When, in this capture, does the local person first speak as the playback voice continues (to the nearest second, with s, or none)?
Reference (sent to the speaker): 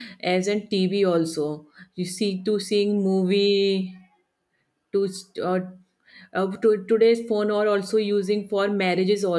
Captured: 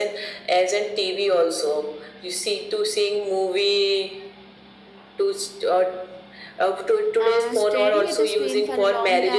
7 s